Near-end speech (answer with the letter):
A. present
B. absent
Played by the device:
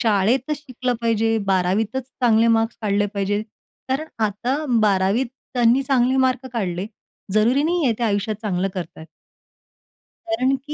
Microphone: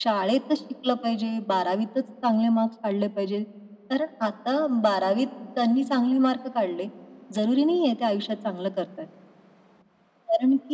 B